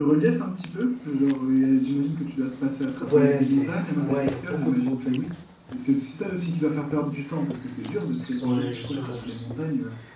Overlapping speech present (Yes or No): Yes